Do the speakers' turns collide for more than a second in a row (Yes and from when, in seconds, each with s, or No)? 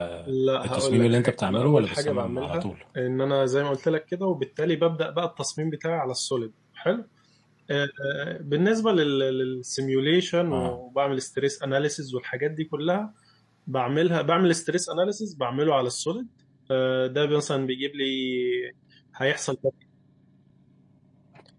Yes, from 0.6 s